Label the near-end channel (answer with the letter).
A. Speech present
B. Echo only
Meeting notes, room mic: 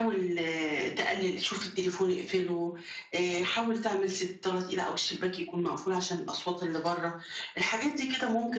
B